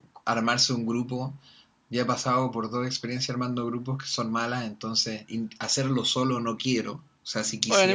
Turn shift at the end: Yes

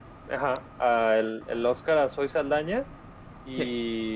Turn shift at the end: No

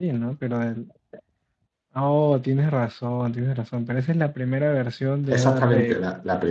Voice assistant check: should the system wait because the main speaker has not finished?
No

